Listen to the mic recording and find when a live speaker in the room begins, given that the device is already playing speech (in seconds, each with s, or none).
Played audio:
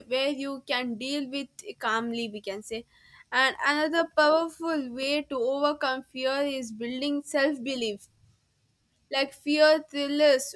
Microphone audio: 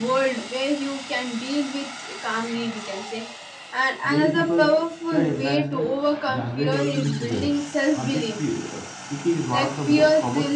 4.0 s